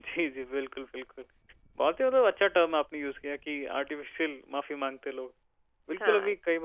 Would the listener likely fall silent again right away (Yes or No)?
Yes